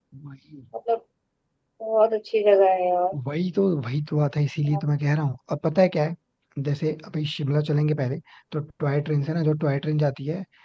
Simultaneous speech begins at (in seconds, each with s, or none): none